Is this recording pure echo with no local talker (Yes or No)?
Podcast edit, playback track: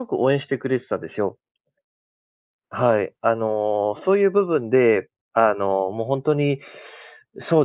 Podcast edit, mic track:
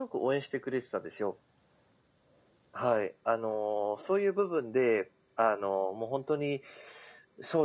Yes